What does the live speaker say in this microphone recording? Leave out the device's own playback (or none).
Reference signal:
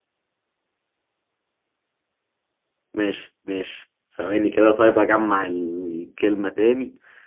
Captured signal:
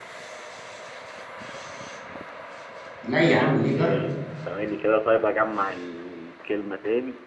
لا يا عم ليه جرب